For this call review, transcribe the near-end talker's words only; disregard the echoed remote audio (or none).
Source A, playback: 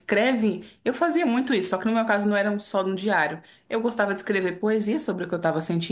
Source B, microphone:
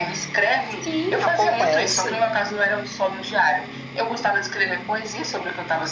Sim, acontece.